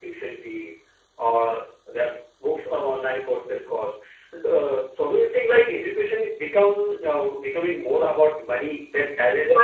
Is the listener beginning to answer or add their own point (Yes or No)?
Yes